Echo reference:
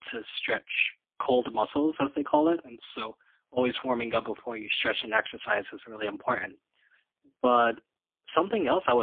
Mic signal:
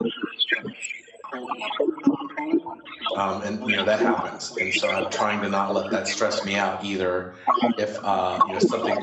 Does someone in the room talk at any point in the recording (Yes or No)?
Yes